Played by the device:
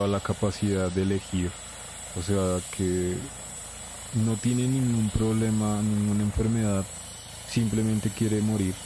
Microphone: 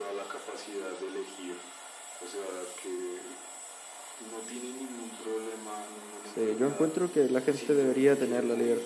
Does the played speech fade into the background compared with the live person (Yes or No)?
Yes